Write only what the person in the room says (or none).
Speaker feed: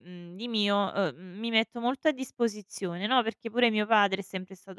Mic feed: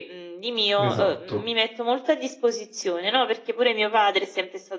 Esatto.